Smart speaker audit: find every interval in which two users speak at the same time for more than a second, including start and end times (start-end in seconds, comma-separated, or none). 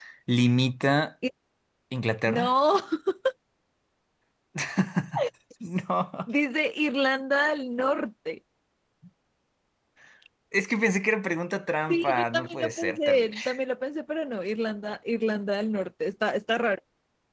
11.9-13.4